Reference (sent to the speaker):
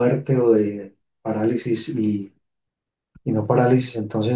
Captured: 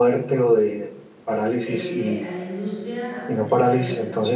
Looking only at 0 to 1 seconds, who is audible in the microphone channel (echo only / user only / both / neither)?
echo only